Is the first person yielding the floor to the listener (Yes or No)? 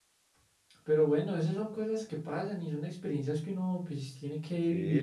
Yes